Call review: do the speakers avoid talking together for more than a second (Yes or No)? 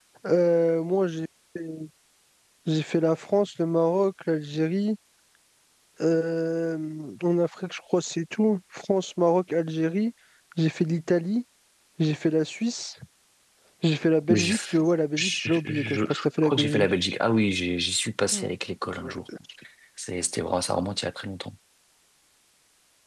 No